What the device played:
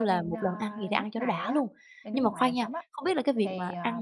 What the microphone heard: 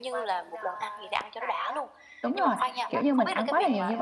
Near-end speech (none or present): present